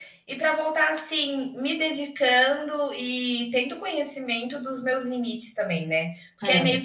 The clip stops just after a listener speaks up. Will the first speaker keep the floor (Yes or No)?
Yes